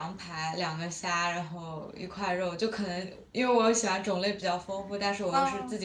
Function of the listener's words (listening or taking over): listening